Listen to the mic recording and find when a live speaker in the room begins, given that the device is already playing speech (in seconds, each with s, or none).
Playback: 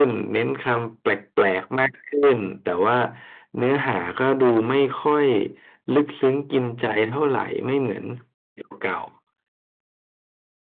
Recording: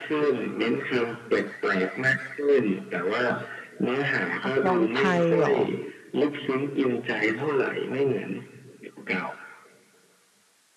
4.4 s